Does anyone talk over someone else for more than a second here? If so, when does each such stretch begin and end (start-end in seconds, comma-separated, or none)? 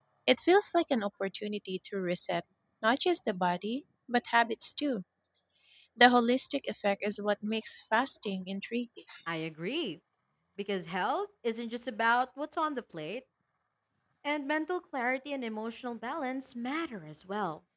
none